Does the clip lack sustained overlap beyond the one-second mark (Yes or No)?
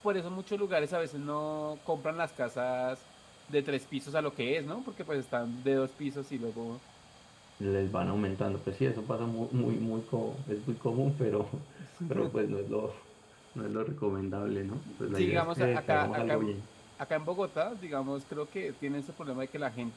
No